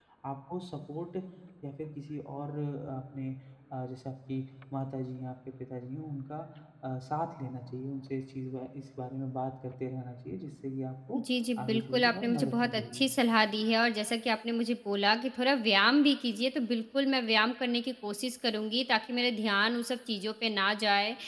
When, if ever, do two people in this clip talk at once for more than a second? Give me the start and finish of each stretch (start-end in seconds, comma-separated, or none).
11.6-13.1